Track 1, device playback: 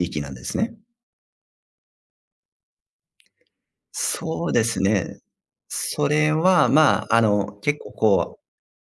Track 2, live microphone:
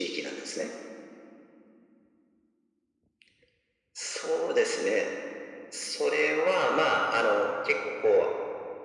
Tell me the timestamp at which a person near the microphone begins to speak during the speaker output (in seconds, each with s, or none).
none